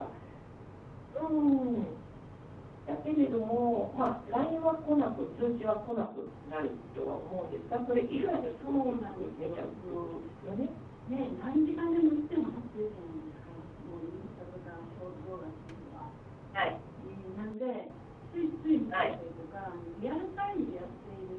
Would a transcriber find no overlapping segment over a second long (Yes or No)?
No